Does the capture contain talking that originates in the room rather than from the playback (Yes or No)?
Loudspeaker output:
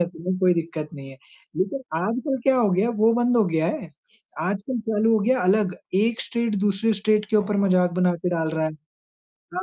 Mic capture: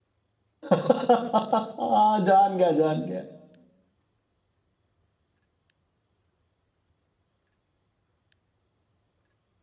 Yes